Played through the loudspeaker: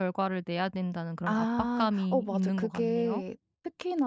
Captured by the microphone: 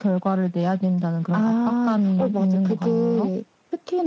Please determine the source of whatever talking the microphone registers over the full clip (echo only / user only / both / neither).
echo only